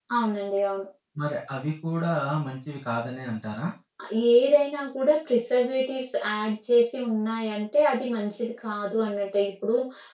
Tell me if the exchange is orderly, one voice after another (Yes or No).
Yes